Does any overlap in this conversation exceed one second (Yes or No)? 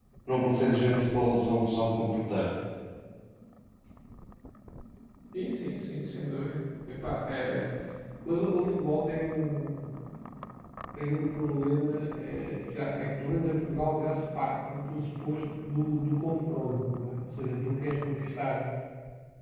No